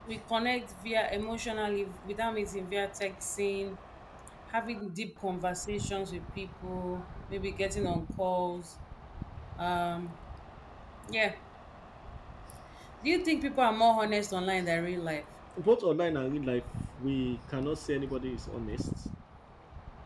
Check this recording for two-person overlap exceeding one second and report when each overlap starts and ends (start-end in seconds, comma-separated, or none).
none